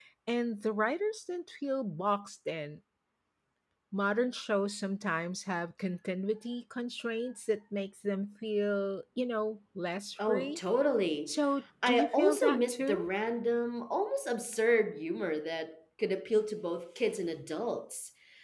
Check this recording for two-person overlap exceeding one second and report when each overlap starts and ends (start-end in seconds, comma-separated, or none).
11.8-13.1